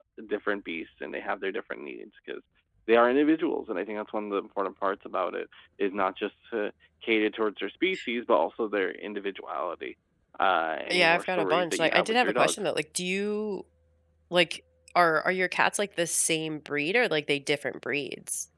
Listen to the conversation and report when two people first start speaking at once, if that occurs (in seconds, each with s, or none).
10.9 s